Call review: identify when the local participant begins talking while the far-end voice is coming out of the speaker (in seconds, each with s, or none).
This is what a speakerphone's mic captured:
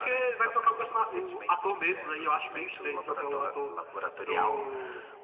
none